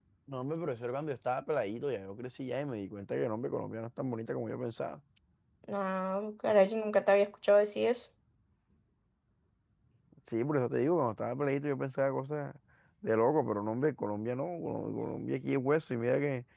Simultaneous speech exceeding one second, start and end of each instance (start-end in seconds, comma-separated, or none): none